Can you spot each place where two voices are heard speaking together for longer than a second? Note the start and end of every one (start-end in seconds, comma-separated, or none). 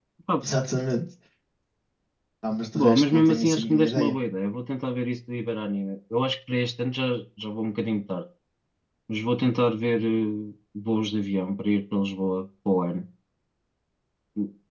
2.7-4.2